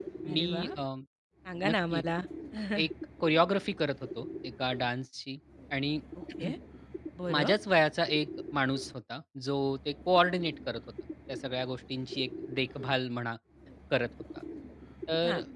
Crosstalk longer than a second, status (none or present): none